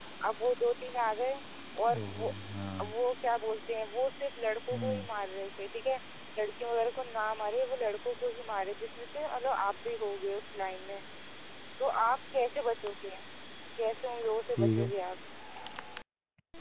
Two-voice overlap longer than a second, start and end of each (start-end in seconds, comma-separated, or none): none